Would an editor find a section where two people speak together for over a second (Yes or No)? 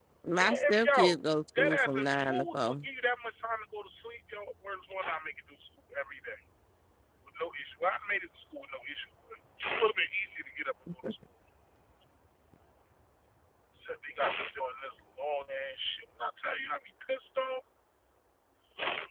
Yes